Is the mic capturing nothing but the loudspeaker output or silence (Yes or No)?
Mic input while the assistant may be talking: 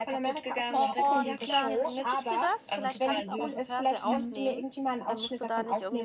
No